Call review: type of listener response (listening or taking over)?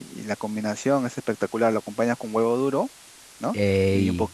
listening